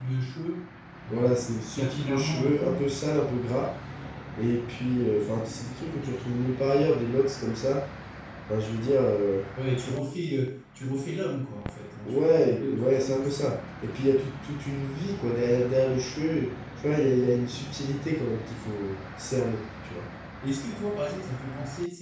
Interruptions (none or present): present